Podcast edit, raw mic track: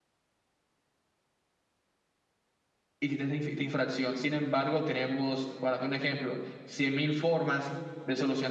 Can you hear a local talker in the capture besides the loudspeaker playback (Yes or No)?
Yes